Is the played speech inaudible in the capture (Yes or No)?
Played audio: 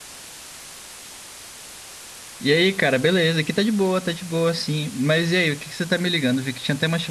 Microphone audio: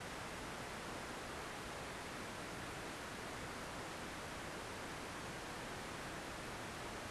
Yes